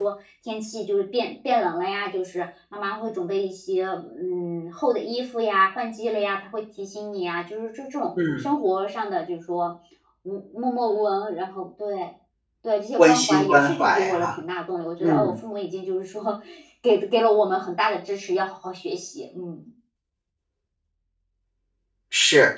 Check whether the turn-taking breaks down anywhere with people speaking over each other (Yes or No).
Yes